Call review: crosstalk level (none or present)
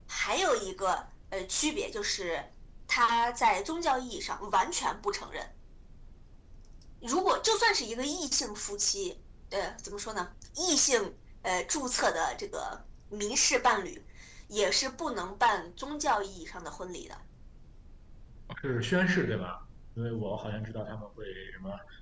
none